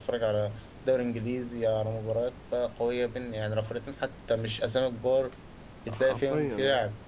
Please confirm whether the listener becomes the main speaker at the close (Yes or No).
Yes